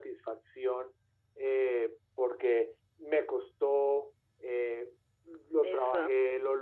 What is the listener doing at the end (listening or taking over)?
listening